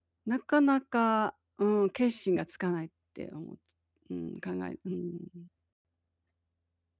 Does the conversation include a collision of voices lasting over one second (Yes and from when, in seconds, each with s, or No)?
No